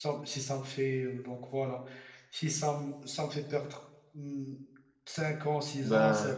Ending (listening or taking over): listening